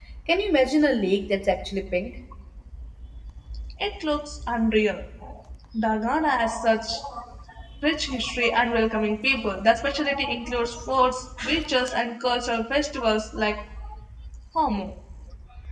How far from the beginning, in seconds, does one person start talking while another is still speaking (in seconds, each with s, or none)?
none